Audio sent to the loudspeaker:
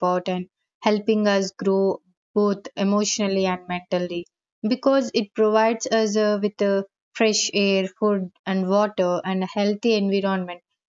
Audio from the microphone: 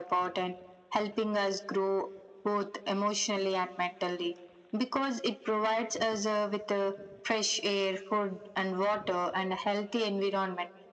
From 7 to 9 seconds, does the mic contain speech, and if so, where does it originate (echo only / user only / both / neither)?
echo only